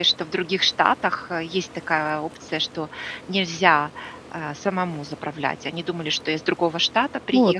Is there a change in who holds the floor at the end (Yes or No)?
No